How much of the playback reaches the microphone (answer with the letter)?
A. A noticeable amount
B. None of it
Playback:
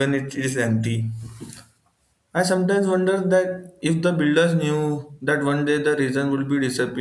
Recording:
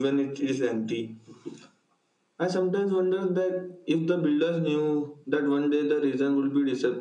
A